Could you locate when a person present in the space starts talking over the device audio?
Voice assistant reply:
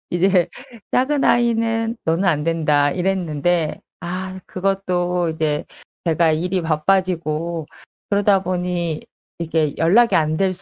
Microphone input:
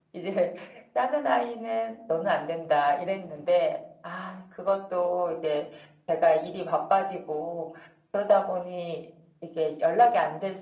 none

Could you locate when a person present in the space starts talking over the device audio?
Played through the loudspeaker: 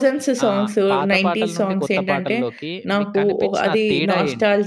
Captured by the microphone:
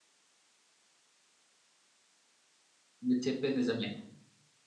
3.1 s

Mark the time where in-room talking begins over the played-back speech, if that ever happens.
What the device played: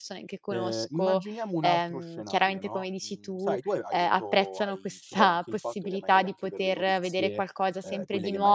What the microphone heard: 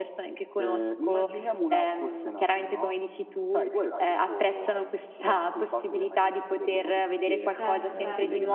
7.5 s

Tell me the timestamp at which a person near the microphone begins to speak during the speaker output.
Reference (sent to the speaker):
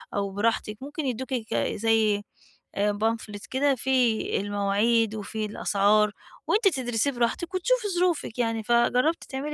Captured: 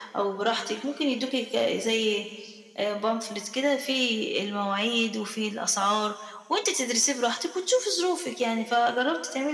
none

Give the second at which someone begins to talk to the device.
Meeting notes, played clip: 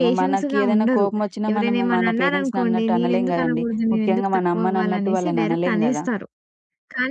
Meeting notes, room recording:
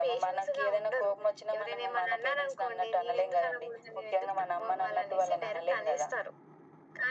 none

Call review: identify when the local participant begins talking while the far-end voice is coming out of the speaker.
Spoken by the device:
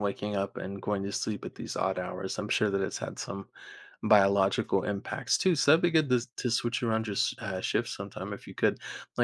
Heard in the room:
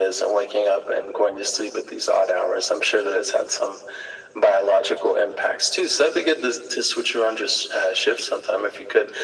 none

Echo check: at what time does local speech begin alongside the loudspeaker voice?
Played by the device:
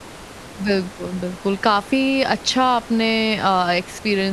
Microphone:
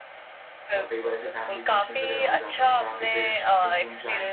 0.8 s

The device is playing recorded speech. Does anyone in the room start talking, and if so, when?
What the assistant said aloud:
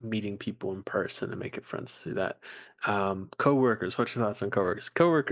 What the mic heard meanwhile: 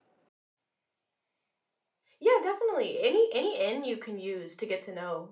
2.2 s

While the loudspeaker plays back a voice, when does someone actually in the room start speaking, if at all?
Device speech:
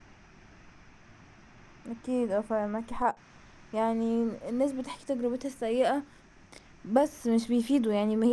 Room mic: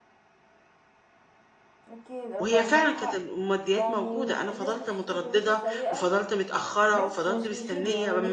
2.4 s

